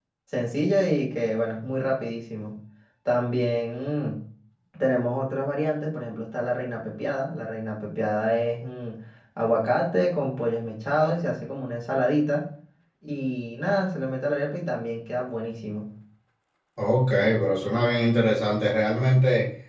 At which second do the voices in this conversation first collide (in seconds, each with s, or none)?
none